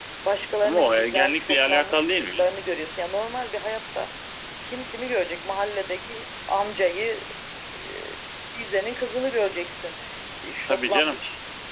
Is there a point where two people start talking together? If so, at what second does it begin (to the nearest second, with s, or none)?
1 s